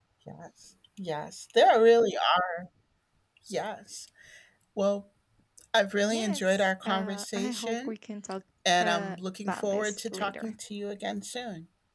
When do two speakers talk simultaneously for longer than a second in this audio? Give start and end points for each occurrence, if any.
6.1-7.9, 8.8-10.5

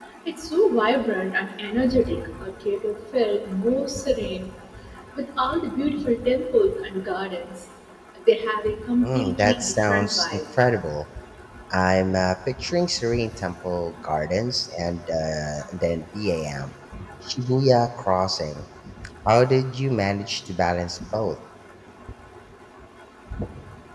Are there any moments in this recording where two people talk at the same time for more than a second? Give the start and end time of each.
9.0-10.3

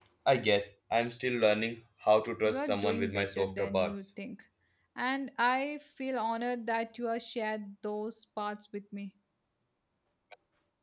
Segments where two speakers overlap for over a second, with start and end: 2.4-3.9

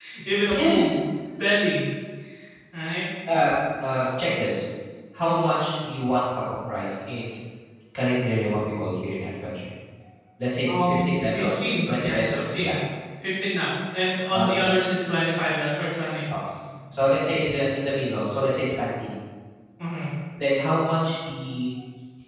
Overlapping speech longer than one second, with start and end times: 10.8-12.8

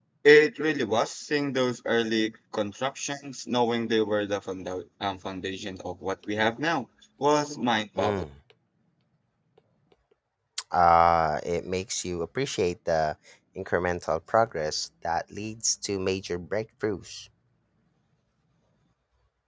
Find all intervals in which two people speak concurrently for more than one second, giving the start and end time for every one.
none

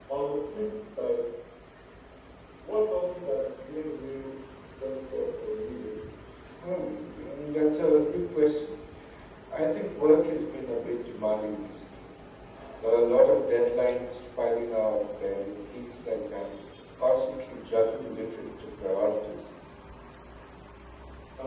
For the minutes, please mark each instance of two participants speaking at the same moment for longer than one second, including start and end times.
none

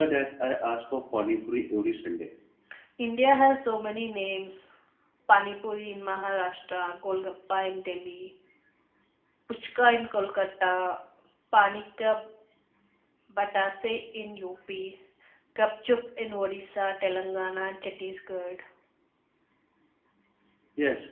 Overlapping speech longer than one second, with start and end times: none

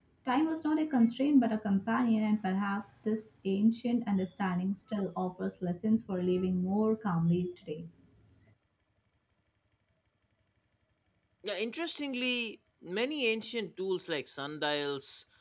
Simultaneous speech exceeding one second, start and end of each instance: none

